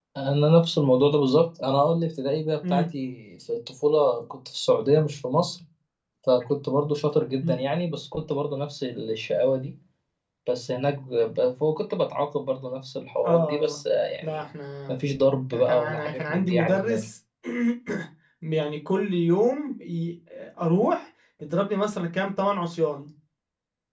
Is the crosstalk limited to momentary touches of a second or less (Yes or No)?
No